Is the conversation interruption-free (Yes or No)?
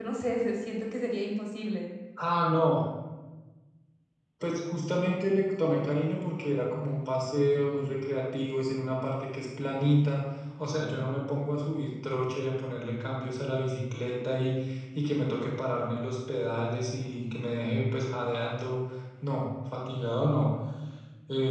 Yes